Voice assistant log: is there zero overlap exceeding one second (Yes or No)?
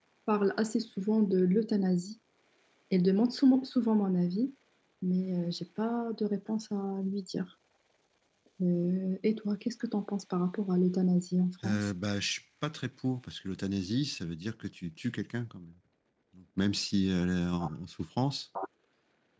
Yes